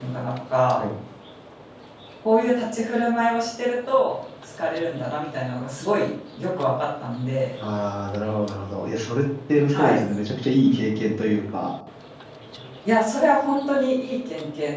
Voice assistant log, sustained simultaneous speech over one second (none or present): none